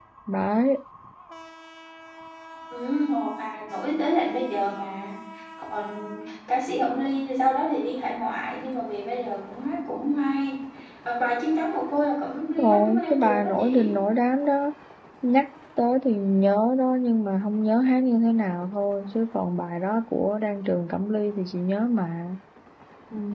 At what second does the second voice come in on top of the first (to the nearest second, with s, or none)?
12 s